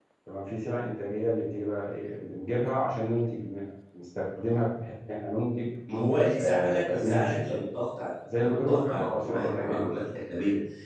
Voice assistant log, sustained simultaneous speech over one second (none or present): present